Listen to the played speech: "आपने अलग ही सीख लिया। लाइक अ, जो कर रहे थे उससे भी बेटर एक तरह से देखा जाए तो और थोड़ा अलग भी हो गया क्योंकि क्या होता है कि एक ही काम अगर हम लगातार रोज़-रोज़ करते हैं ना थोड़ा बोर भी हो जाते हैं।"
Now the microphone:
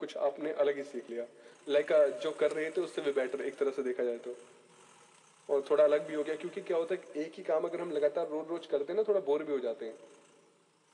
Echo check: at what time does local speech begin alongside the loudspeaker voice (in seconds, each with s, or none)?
none